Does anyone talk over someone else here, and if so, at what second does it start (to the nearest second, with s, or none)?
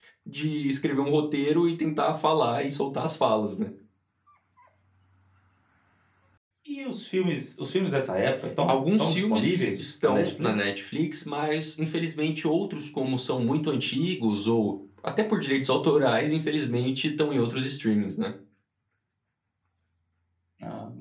9 s